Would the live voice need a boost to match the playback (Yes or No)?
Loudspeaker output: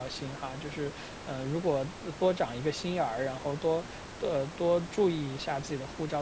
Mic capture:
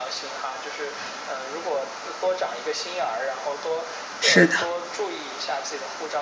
No